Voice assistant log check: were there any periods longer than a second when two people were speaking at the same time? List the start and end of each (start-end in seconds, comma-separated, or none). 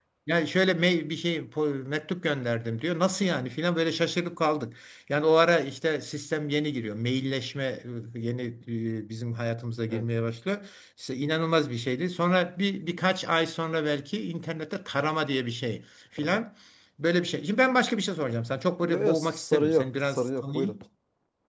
18.8-20.7